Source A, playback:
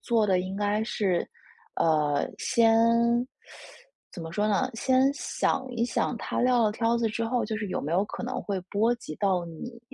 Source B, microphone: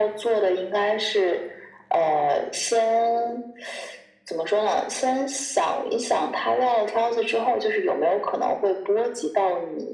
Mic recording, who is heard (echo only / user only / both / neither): echo only